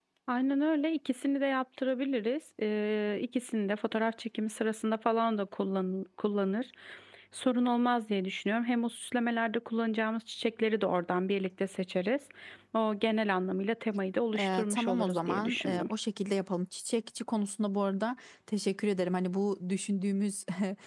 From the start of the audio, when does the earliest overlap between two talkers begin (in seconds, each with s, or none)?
14.3 s